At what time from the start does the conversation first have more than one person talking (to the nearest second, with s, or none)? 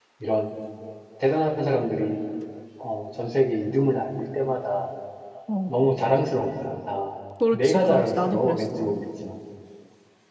7 s